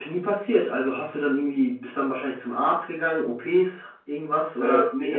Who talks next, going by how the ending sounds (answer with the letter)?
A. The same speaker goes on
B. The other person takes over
B